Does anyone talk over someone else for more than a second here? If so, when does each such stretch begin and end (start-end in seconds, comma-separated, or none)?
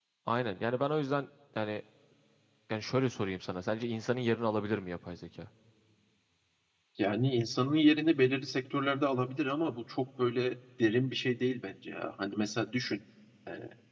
none